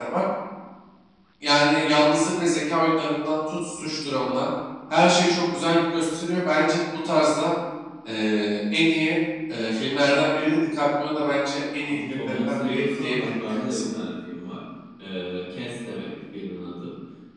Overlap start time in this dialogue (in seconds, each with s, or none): 11.8 s